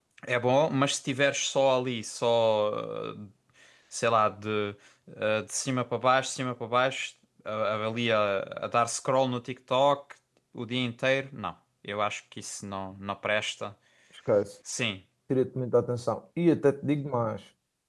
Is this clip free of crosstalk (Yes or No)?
Yes